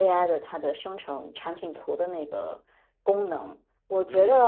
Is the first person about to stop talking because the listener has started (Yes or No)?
No